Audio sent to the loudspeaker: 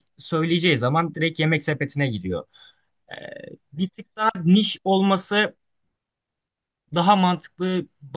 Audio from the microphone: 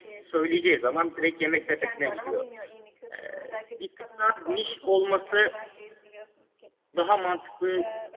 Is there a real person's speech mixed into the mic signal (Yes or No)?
Yes